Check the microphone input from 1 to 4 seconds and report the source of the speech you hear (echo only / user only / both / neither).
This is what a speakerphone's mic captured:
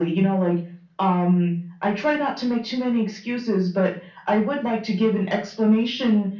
echo only